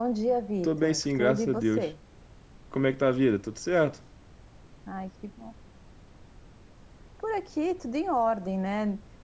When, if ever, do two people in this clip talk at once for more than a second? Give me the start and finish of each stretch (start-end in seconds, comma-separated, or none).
0.6-1.9